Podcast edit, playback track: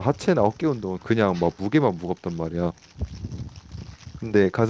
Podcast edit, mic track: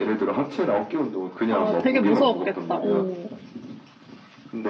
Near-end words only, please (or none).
아, 되게 무서웠겠다. 오.